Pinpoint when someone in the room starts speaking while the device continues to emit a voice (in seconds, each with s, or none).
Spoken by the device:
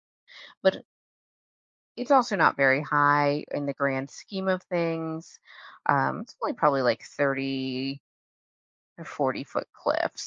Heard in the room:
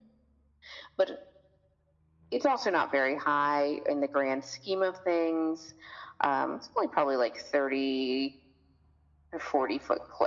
none